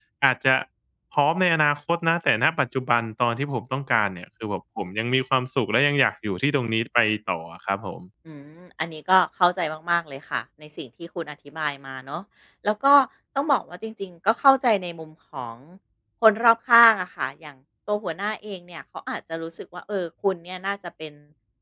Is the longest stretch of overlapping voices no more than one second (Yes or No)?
Yes